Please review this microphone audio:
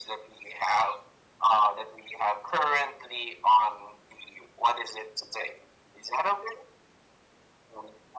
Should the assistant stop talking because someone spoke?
No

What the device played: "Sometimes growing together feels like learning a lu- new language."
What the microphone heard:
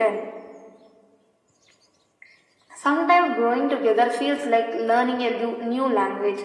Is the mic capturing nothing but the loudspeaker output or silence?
Yes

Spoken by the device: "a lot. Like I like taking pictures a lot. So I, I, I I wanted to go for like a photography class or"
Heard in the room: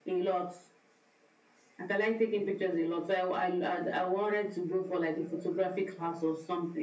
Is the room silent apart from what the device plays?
Yes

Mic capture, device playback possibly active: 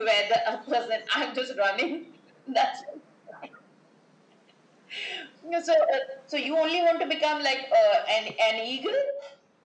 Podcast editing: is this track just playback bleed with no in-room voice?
Yes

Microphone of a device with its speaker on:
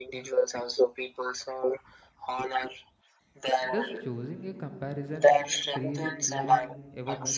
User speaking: Yes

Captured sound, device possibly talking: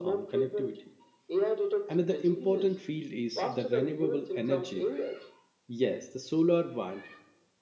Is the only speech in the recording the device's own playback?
No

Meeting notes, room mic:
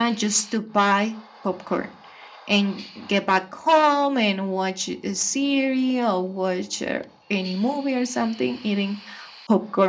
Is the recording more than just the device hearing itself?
Yes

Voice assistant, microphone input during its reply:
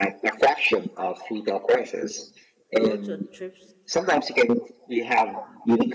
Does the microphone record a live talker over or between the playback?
Yes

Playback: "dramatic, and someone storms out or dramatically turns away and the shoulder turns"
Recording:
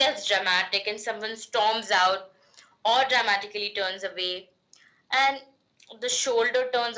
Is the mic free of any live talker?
Yes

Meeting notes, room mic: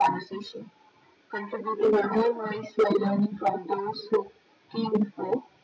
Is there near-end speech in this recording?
No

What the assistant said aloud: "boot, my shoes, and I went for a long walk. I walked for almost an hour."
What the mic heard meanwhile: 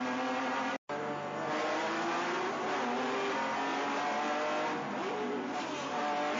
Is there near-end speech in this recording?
No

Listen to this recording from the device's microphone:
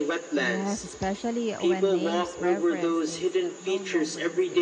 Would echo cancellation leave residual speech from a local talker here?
Yes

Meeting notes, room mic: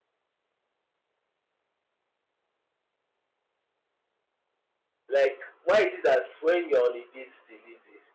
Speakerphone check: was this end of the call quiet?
No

